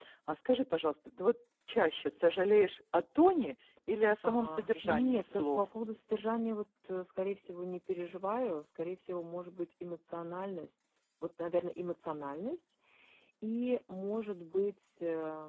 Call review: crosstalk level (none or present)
present